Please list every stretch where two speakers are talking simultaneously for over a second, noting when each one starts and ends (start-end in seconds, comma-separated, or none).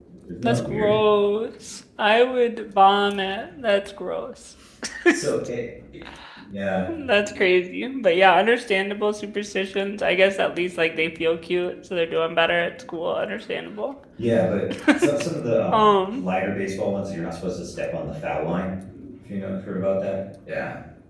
none